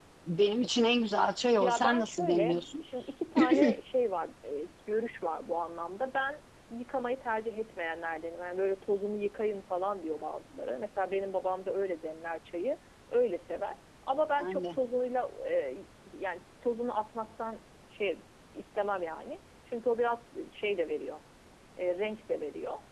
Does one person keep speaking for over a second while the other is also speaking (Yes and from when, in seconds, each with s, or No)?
Yes, from 1.6 s